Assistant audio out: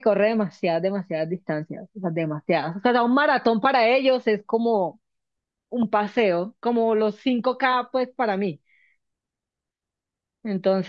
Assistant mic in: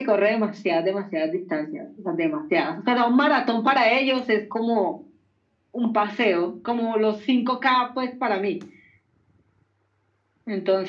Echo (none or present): present